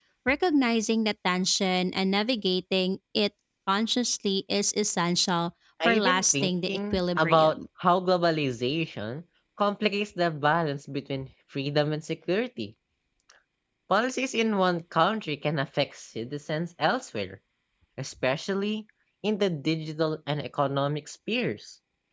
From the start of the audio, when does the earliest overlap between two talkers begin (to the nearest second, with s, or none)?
6 s